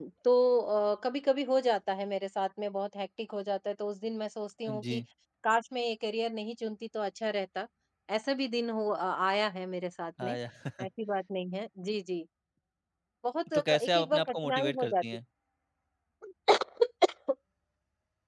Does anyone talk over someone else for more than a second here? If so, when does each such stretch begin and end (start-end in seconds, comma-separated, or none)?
13.5-15.0